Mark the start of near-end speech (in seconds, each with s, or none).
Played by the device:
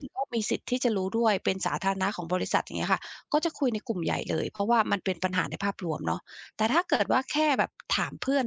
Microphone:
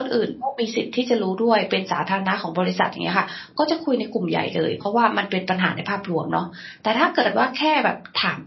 none